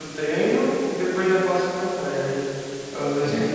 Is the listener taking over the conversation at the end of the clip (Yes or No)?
Yes